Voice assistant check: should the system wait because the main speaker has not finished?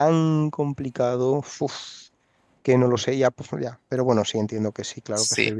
No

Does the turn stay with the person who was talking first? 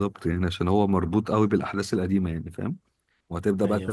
Yes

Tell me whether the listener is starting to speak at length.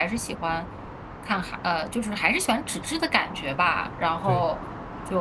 No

